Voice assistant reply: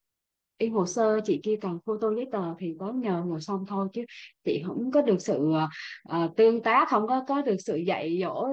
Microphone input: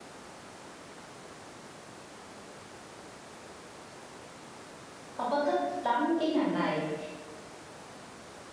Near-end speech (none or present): present